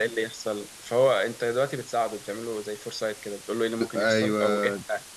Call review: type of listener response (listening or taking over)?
listening